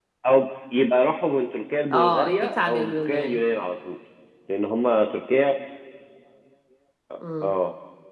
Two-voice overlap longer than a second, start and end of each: 1.9-3.4

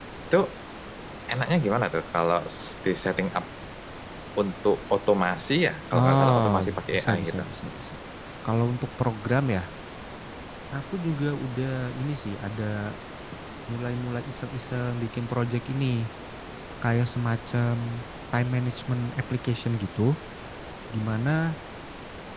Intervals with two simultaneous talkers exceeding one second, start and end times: 5.9-7.4

